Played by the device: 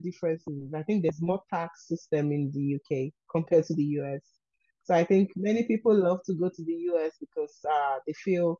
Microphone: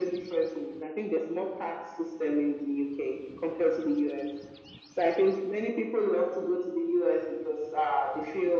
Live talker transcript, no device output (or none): none